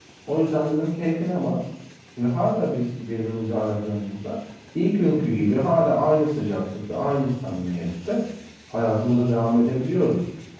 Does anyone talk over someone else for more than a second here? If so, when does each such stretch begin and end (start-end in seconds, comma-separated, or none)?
none